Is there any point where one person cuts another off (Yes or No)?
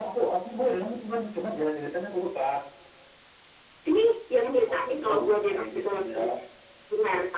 Yes